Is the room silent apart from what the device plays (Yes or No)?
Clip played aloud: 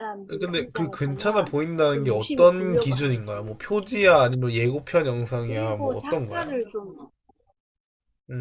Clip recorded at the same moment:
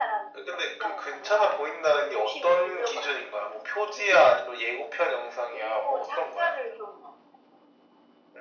Yes